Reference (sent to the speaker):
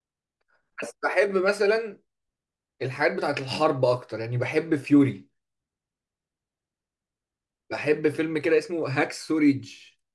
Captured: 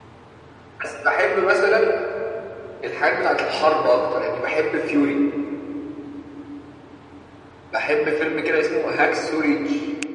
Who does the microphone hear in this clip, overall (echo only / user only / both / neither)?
echo only